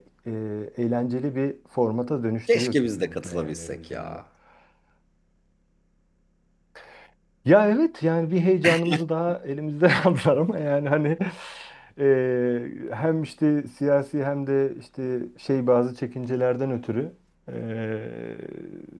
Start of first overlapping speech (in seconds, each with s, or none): 2.5 s